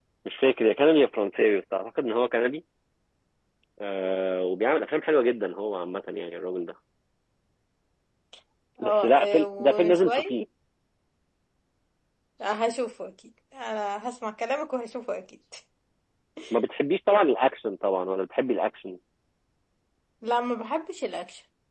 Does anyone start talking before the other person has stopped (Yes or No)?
Yes